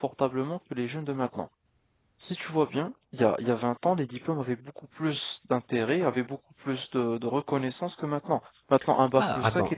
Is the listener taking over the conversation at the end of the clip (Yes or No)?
Yes